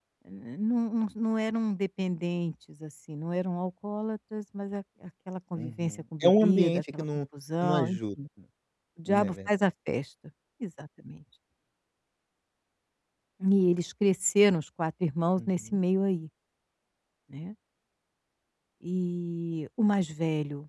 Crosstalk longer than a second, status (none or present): present